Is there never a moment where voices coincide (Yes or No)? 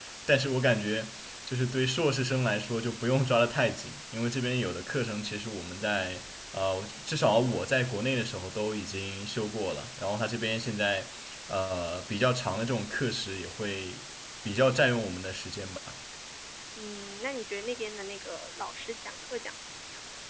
Yes